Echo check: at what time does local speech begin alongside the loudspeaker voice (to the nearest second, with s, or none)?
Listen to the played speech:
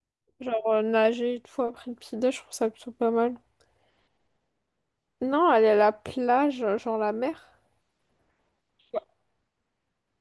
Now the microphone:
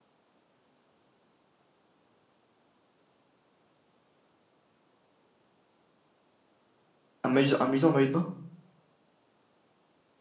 7 s